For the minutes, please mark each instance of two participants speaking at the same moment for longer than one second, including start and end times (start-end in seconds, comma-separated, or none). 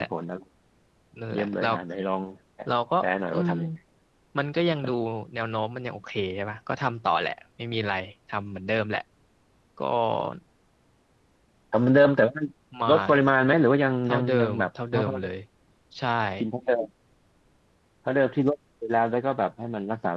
14.0-15.3